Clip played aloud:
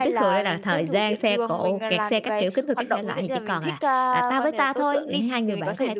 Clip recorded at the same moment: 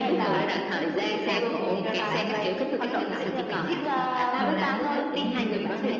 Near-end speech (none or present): present